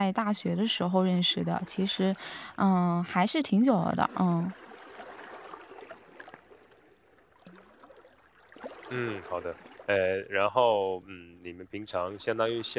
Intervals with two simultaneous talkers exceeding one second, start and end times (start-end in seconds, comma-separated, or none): none